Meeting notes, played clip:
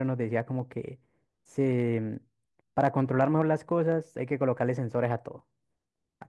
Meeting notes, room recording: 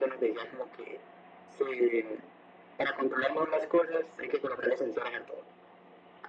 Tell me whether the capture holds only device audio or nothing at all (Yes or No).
Yes